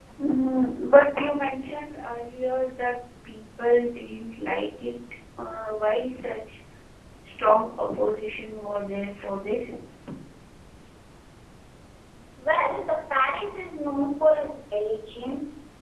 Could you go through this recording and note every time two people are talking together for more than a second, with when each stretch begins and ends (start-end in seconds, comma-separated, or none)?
none